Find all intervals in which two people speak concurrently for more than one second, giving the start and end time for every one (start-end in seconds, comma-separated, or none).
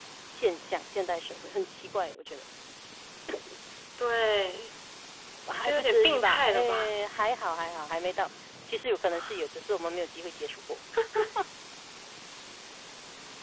5.6-6.9